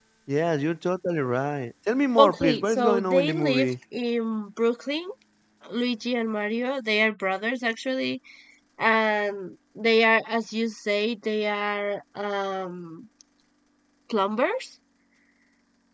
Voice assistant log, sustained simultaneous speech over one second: present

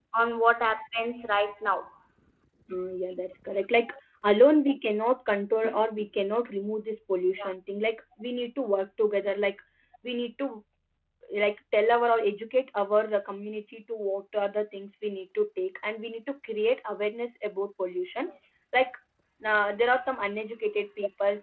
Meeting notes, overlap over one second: none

